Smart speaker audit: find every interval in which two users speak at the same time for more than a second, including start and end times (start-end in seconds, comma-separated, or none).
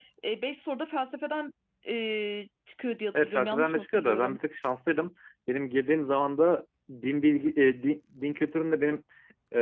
3.1-4.4